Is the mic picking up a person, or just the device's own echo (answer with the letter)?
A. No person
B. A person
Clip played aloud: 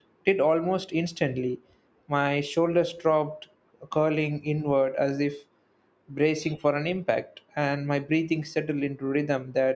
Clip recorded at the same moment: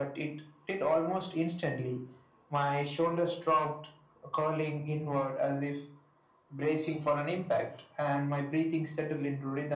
A